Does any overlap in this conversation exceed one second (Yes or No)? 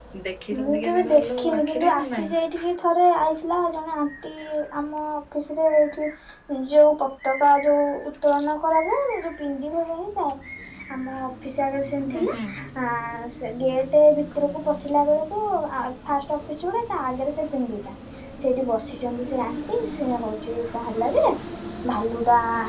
Yes